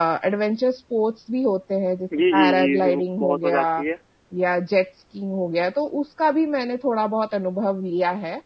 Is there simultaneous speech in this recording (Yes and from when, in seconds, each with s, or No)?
Yes, from 2.1 s